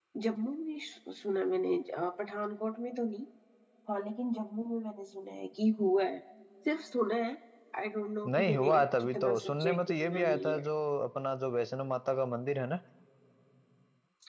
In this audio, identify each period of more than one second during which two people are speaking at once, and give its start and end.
8.3-10.7

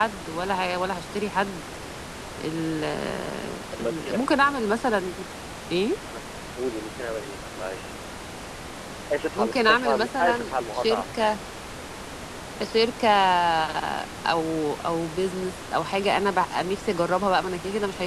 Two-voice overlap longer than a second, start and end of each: 9.3-11.0

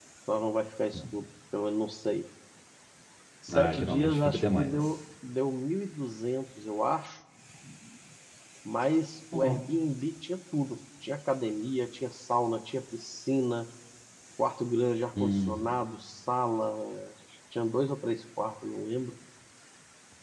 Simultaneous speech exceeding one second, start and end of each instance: 3.5-4.8

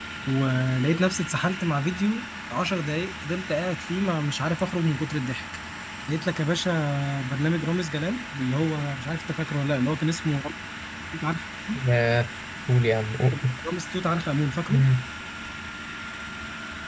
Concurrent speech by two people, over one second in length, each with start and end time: none

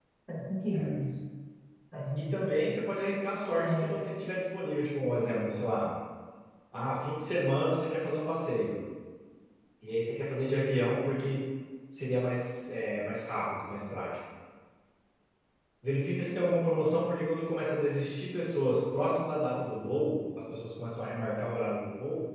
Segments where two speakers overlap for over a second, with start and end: none

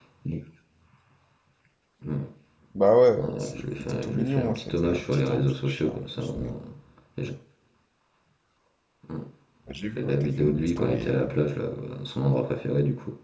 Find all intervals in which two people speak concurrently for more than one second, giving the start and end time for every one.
3.2-6.5, 10.0-11.2

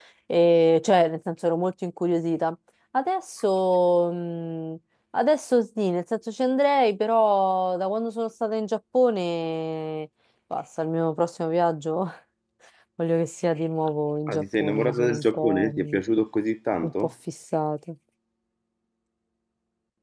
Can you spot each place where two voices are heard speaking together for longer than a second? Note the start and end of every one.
14.3-16.0

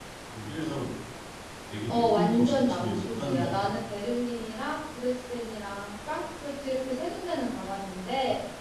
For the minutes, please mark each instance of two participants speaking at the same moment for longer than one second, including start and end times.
1.9-3.7

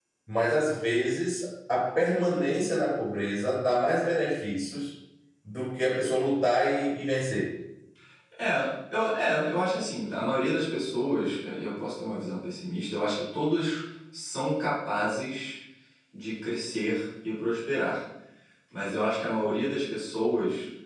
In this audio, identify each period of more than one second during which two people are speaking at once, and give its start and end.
none

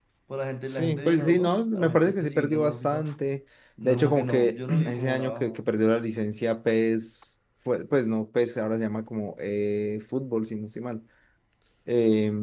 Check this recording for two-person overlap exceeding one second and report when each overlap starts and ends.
0.6-3.0, 3.8-5.5

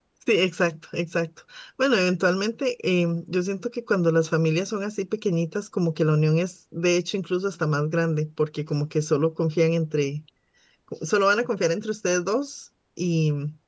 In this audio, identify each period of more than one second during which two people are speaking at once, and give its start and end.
none

